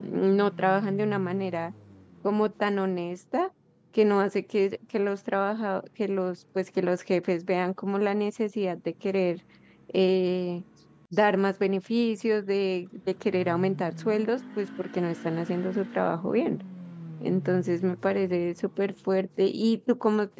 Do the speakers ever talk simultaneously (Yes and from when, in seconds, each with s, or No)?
No